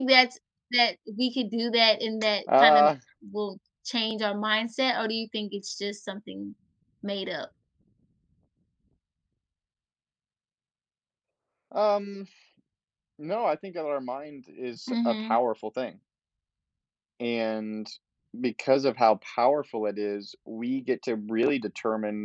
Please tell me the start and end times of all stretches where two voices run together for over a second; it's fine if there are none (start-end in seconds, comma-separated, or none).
none